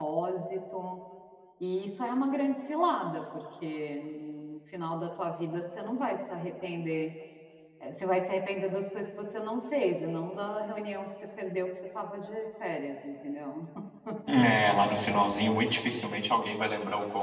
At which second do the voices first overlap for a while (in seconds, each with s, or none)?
none